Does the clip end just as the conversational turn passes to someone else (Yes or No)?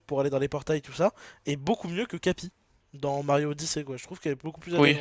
Yes